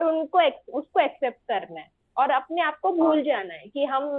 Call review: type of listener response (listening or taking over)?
listening